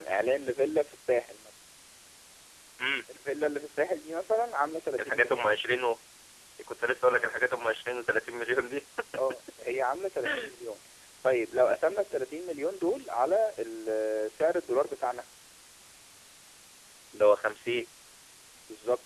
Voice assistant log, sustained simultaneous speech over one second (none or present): none